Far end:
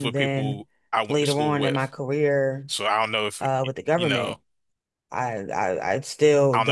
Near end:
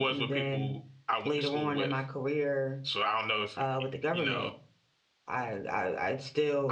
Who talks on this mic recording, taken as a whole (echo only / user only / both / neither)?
echo only